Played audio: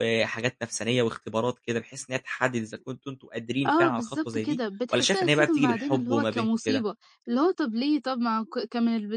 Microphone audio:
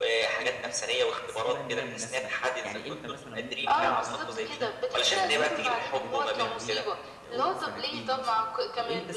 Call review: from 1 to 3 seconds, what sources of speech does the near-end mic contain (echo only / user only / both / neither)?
both